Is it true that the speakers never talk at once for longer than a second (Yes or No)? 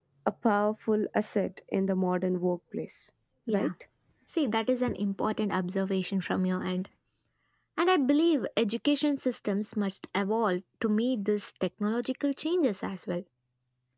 Yes